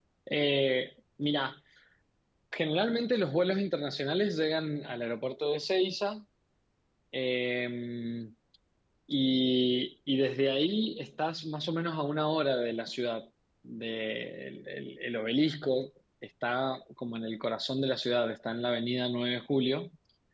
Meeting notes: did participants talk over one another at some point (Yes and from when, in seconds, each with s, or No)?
No